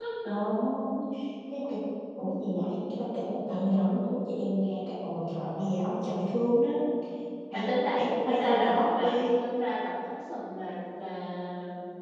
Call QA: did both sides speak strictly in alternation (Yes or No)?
No